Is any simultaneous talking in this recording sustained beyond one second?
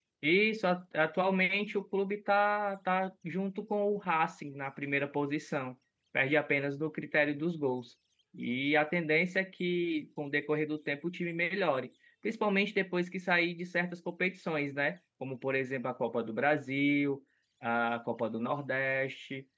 No

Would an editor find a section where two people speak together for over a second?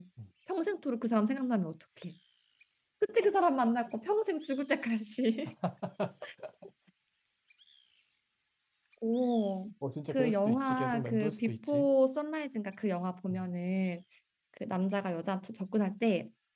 Yes, from 10.1 s

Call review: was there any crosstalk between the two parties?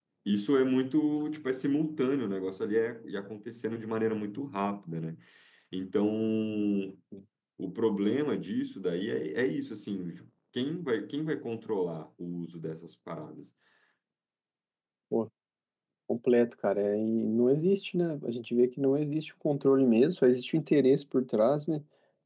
No

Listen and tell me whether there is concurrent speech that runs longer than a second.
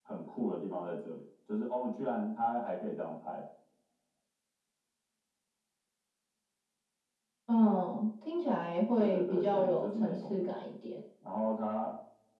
Yes, from 9.0 s

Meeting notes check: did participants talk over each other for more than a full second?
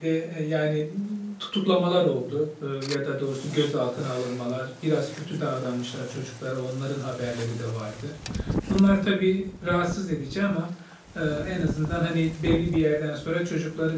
No

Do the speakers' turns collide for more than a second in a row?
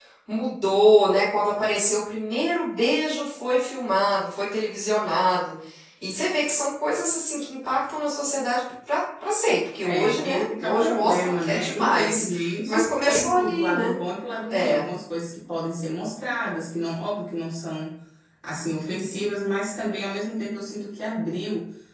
Yes, from 9.8 s

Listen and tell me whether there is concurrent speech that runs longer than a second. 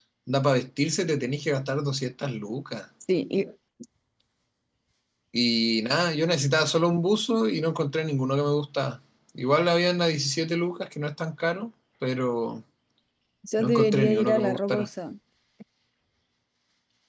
Yes, from 13.6 s

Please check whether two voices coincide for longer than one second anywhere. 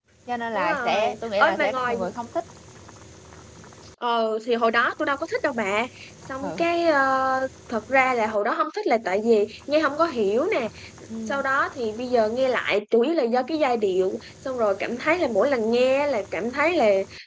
Yes, from 0.5 s

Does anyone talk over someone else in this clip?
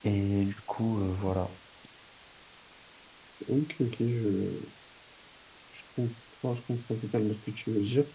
No

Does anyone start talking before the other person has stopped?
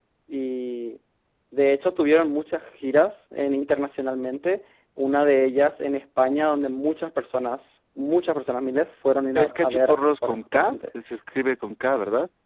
Yes, from 9.3 s

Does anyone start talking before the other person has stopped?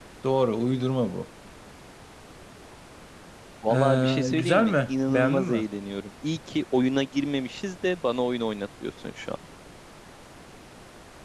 Yes, from 3.7 s

